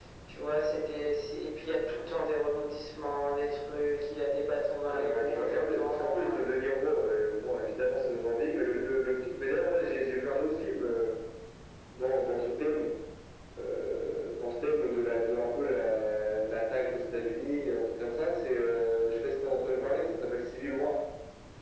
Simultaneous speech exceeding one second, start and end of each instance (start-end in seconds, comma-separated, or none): 4.9-6.3